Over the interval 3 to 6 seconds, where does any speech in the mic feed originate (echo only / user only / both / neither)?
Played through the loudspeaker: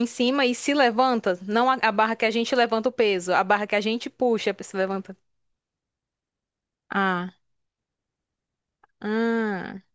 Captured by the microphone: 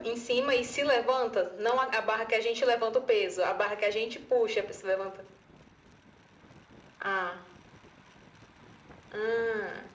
echo only